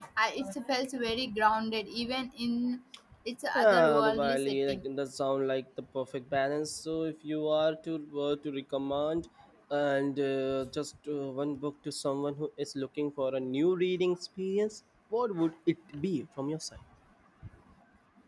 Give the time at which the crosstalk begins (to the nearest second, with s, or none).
4 s